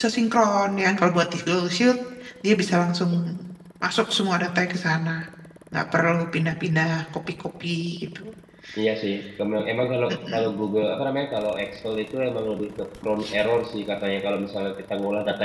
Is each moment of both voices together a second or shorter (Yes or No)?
Yes